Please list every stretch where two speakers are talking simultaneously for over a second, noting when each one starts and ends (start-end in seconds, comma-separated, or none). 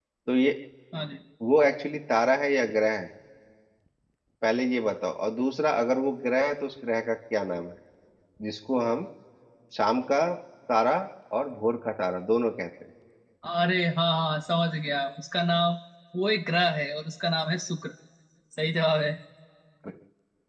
none